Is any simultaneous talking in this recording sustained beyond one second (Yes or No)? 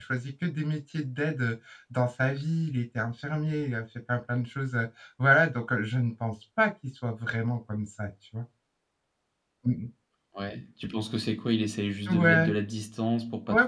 No